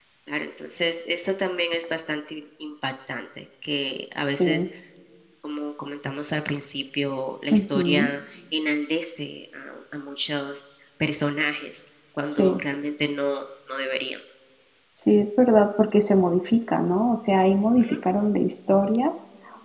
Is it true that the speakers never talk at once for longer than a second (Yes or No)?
Yes